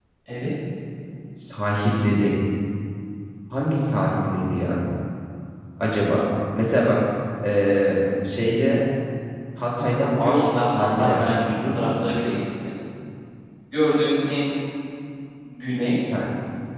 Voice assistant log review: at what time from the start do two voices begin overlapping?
10 s

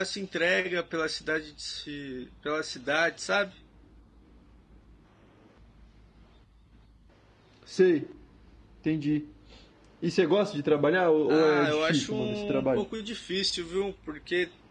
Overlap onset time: 11 s

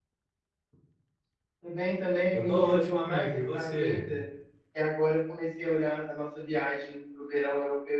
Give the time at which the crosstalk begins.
2 s

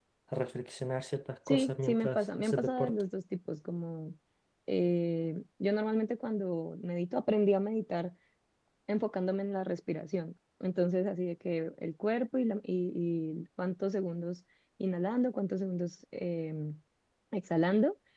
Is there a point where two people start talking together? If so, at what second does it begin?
1 s

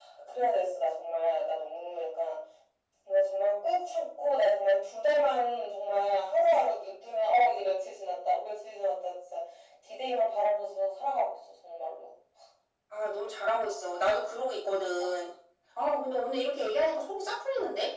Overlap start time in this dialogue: none

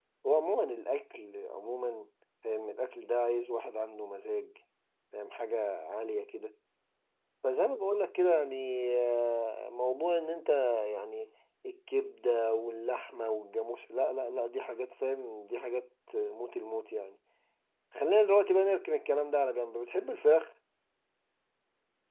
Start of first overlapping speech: none

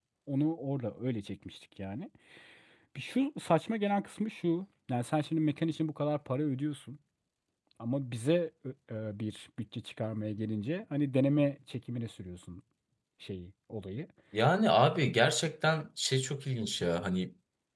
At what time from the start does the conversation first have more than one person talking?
none

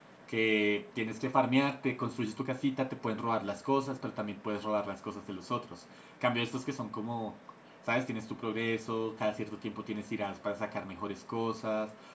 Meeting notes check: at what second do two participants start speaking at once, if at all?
none

